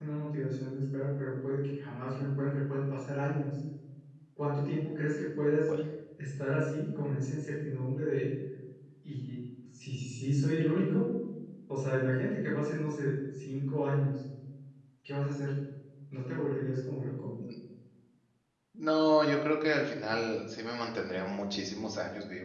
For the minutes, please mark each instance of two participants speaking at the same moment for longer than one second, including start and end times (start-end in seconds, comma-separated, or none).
none